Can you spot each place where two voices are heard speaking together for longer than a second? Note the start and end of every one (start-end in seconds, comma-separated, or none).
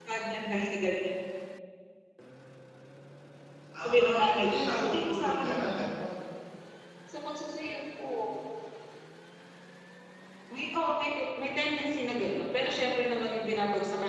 3.8-6.0